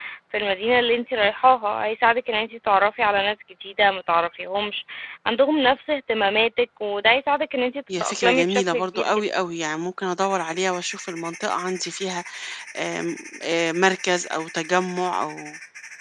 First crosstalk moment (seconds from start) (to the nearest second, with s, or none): 8 s